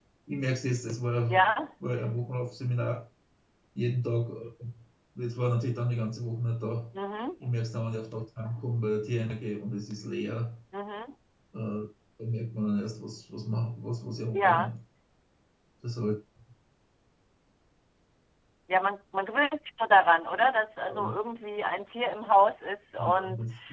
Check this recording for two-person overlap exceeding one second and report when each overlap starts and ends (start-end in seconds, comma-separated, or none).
none